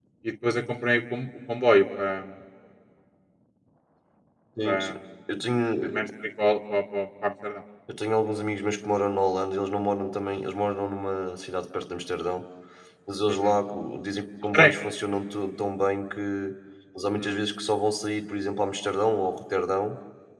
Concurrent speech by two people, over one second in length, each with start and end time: none

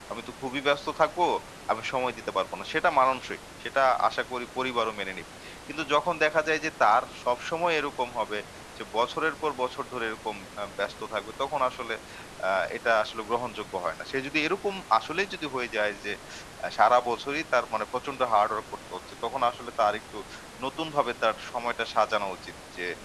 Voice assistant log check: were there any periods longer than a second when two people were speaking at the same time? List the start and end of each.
none

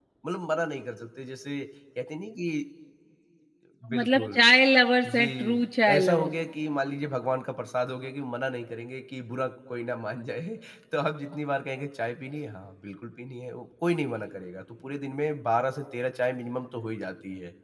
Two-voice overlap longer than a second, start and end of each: 5.1-6.3

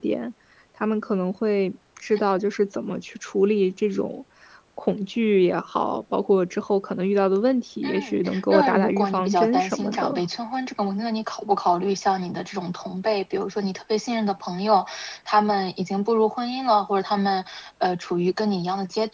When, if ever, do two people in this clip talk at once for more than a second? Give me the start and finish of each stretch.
7.8-10.2

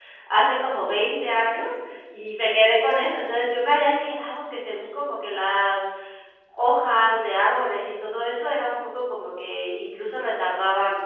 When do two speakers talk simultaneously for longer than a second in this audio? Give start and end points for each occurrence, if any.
none

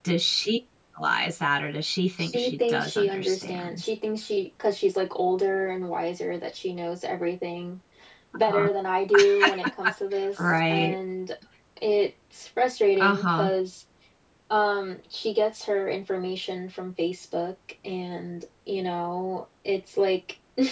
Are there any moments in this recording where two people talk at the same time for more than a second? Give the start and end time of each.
2.2-3.9

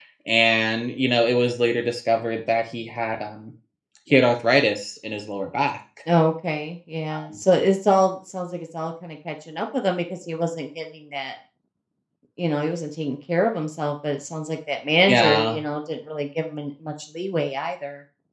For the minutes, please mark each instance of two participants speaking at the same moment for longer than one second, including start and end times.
none

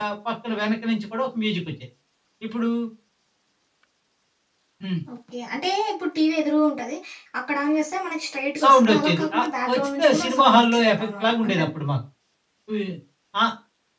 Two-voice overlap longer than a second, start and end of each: 8.6-11.7

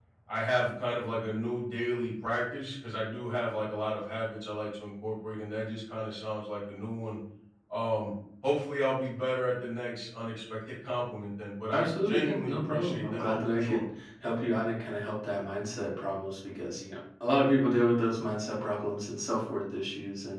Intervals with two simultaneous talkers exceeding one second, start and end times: 11.7-13.8

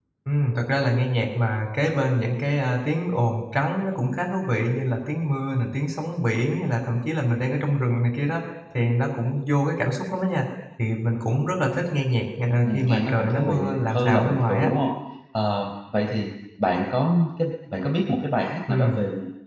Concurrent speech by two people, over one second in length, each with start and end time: 12.6-14.7

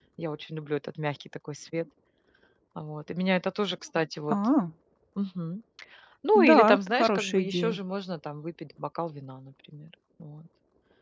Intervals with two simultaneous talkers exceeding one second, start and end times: 6.3-7.8

